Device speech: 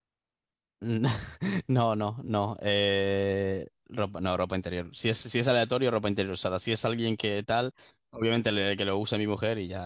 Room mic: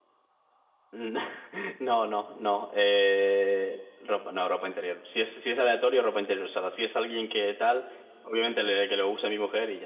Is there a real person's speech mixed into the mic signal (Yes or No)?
No